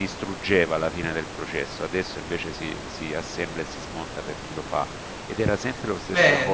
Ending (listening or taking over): taking over